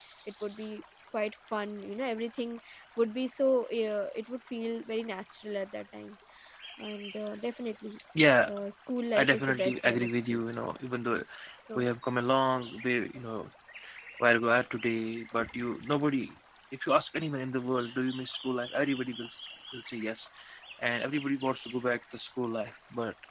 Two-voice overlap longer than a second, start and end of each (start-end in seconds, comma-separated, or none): 9.2-10.4